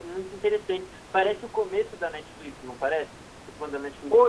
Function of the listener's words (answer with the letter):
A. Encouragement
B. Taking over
B